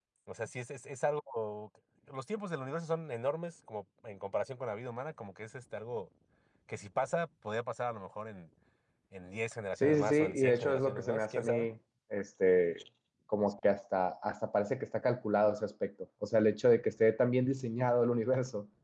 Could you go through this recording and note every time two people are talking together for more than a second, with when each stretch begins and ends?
9.8-11.7

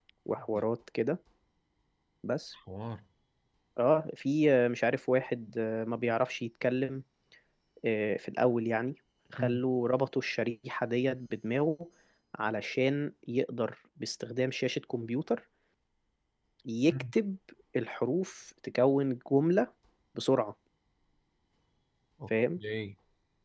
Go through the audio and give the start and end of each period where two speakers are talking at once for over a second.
none

